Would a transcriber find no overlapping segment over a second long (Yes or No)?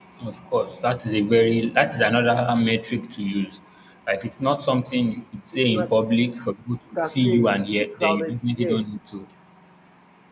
No